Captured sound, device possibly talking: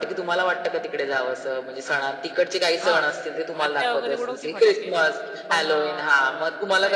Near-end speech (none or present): present